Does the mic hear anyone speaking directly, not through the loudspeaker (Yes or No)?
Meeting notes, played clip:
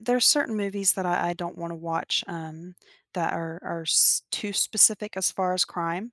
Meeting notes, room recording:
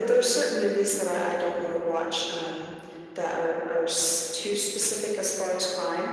No